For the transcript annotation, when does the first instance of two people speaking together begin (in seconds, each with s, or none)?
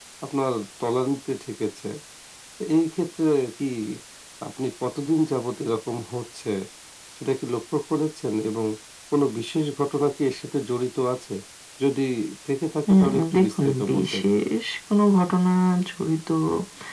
12.9 s